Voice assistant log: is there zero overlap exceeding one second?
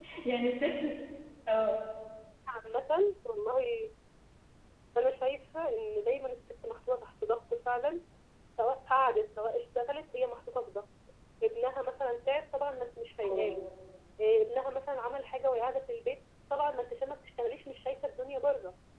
Yes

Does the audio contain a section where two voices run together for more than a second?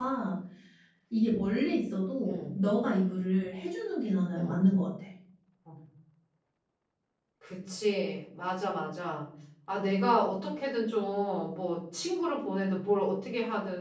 No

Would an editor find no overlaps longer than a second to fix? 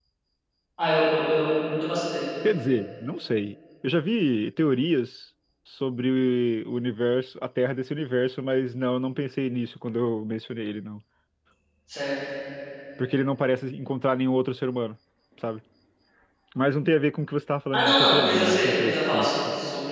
No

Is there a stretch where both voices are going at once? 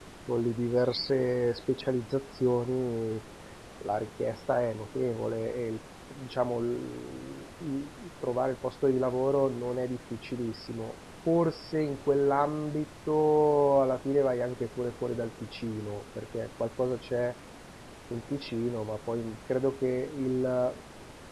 No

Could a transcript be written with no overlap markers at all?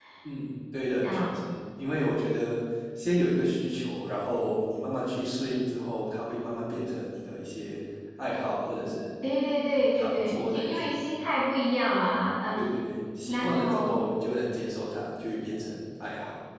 No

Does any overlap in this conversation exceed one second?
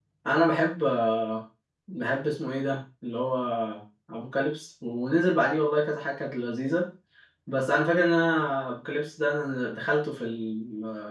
No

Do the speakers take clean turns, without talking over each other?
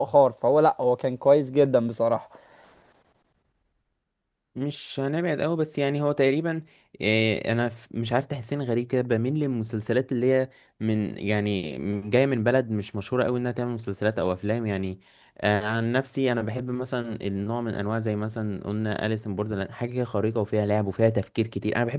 Yes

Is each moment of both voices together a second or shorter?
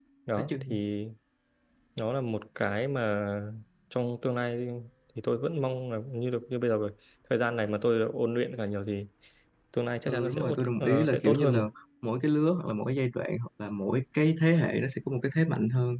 No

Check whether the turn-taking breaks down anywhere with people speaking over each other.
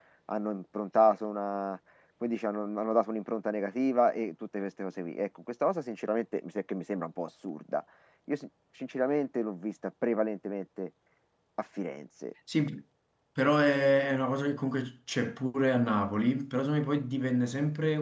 No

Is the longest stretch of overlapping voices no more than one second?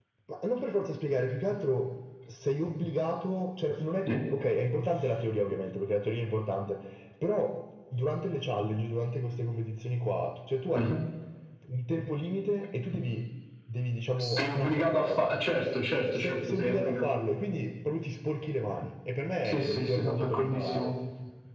No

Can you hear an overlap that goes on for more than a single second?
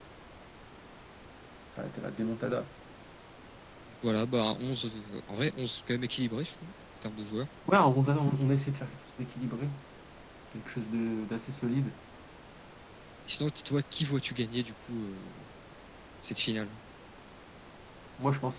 No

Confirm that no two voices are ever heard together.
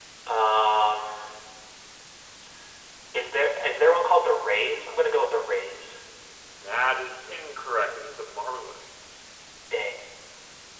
Yes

